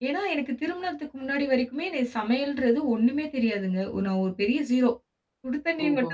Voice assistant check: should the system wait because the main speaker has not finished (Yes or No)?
Yes